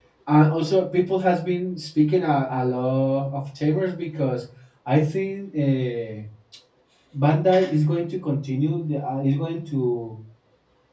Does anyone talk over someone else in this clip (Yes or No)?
No